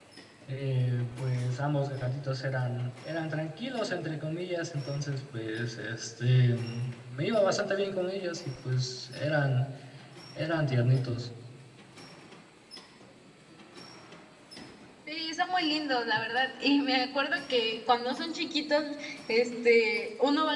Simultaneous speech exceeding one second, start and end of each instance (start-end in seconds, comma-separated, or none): none